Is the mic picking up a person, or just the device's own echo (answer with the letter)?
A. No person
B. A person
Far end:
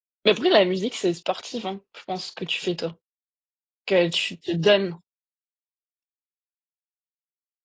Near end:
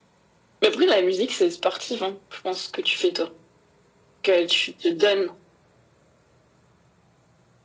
A